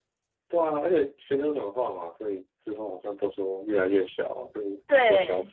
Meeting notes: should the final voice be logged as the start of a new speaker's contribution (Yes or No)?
Yes